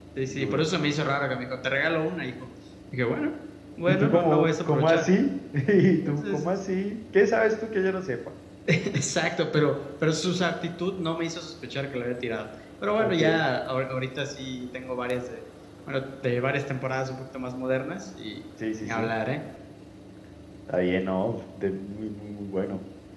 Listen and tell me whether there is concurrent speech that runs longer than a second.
Yes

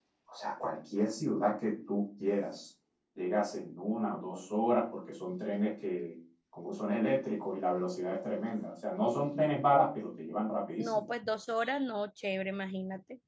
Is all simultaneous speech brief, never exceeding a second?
Yes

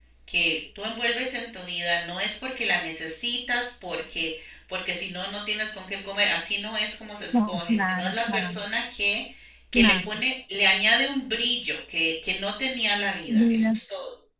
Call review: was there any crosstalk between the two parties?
Yes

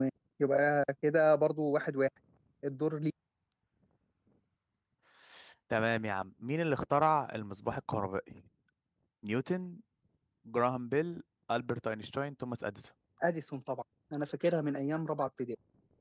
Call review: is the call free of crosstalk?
Yes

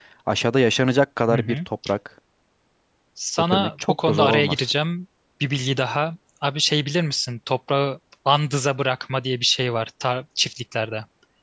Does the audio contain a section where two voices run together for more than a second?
Yes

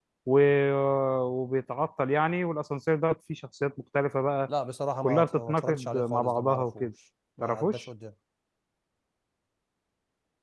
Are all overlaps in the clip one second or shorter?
No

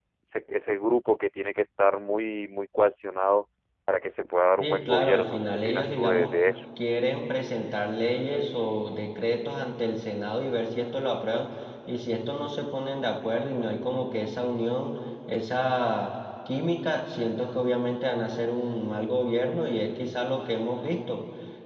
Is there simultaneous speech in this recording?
Yes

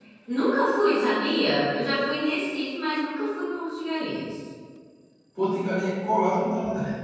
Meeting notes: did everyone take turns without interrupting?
Yes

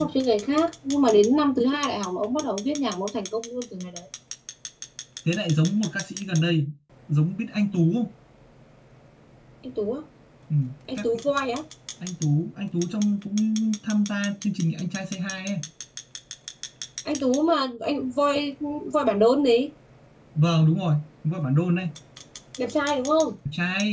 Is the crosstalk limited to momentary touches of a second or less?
Yes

